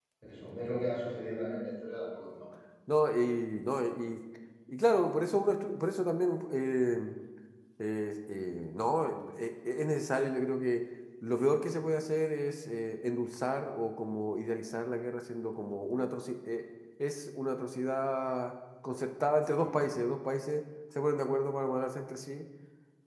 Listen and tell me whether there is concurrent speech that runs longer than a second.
No

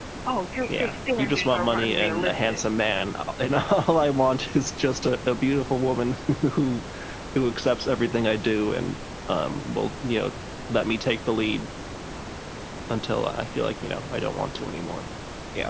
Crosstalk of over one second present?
Yes, from 0.7 s

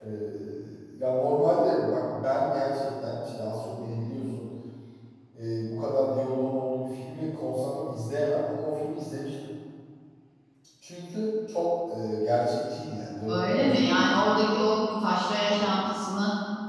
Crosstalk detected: Yes, from 13.3 s

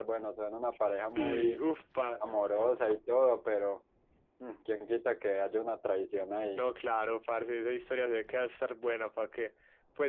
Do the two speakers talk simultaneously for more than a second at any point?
No

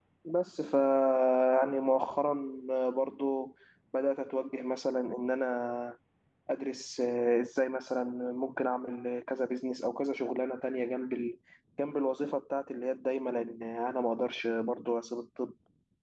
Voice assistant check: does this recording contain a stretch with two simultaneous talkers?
No

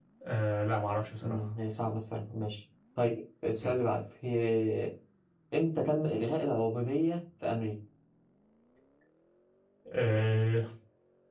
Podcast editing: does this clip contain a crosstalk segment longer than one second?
No

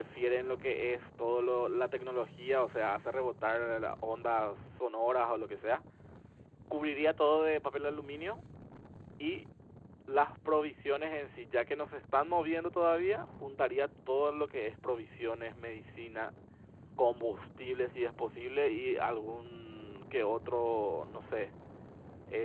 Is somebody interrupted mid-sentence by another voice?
No

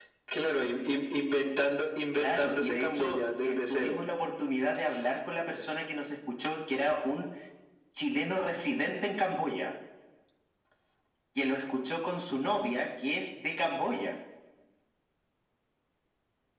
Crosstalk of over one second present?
Yes, from 2.1 s

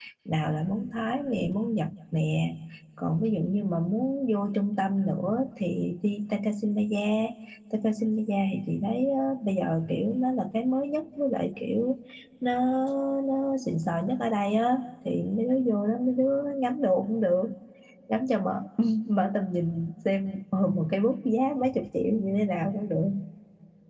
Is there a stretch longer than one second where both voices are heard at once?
No

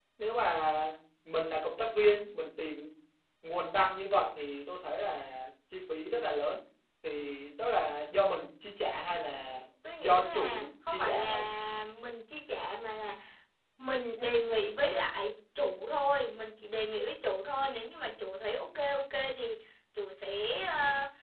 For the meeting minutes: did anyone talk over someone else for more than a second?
Yes, from 10.0 s

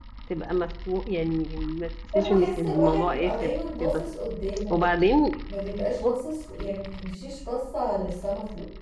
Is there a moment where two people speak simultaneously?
Yes, from 2.1 s

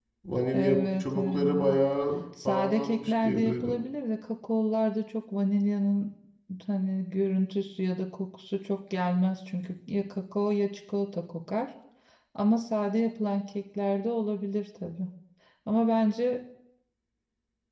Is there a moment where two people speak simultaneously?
Yes, from 0.5 s

